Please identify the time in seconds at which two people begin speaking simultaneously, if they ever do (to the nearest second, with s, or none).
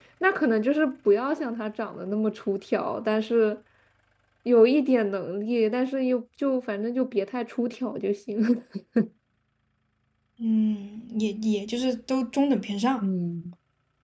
none